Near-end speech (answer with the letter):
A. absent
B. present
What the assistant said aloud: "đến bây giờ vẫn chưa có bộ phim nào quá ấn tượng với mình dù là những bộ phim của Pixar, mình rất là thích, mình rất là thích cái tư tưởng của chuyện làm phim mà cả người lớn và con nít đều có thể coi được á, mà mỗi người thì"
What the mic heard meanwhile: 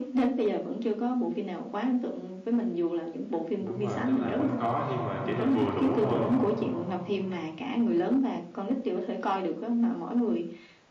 B